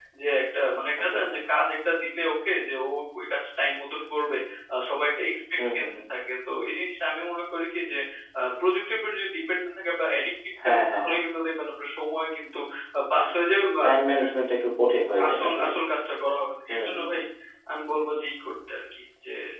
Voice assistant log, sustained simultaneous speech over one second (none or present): none